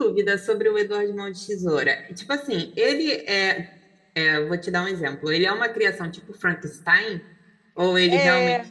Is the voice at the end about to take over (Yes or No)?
Yes